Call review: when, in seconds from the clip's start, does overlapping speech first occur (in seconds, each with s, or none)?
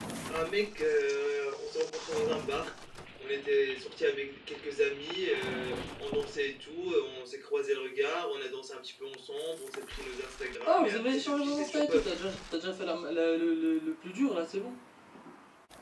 10.7 s